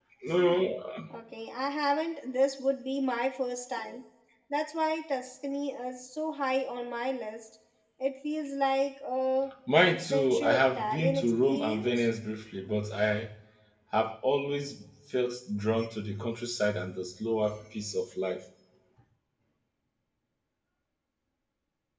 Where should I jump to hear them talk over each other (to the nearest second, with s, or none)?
10 s